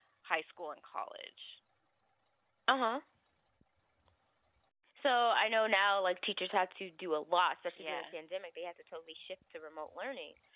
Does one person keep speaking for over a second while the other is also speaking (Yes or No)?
No